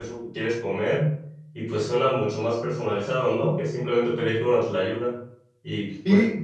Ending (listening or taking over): listening